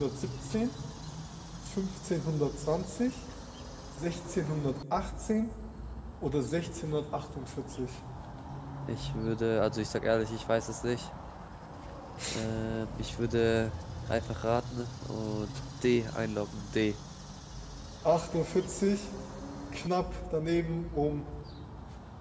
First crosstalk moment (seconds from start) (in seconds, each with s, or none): none